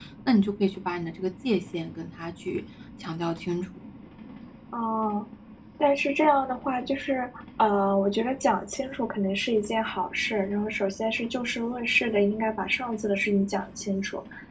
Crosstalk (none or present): none